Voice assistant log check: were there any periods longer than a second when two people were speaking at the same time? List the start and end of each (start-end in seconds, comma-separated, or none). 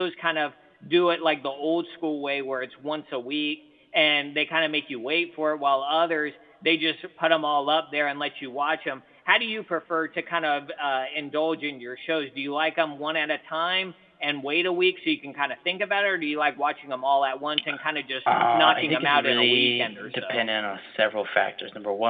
18.3-20.5